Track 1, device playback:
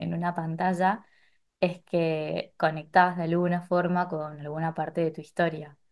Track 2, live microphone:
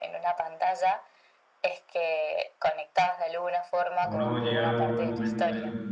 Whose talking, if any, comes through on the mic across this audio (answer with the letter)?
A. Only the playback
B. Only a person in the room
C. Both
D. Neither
C